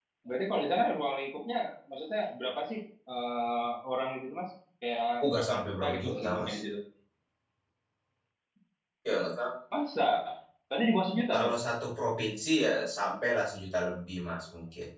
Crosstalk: present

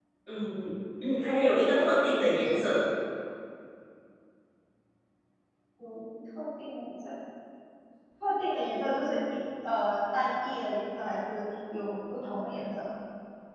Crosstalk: present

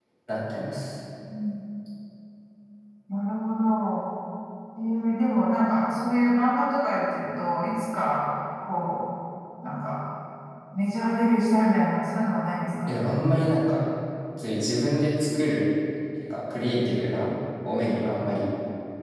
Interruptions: none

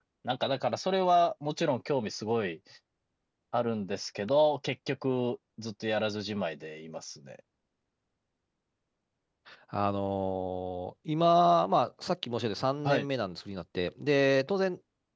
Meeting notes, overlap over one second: none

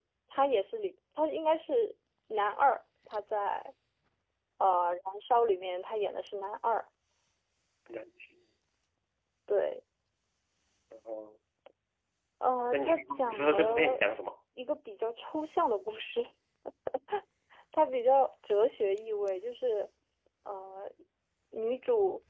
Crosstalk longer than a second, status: present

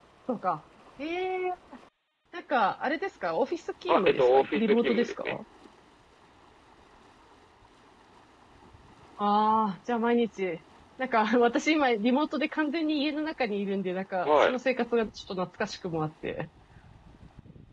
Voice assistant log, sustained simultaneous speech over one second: present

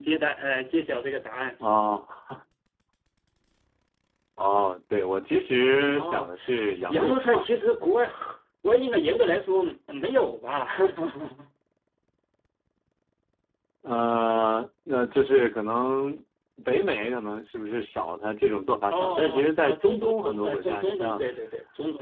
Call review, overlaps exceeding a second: present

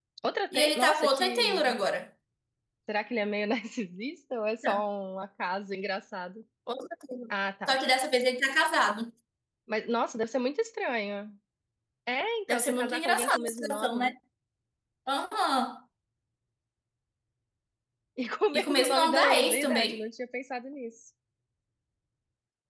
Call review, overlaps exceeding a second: present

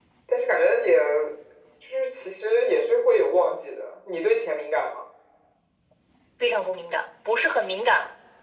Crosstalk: none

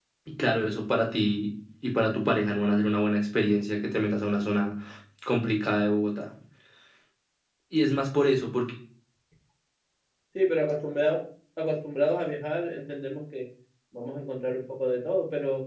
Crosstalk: none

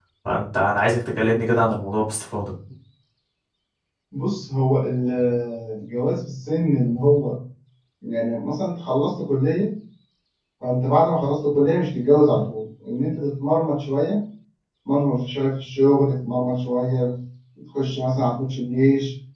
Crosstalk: none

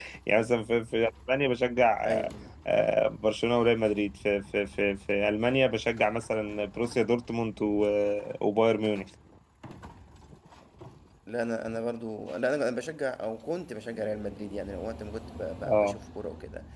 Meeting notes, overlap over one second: none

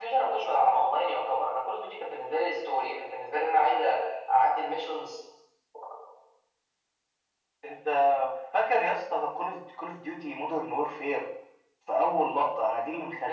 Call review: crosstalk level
none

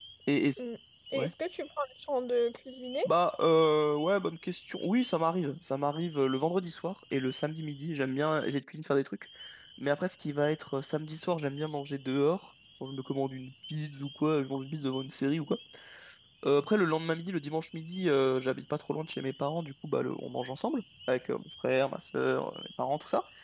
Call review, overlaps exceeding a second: none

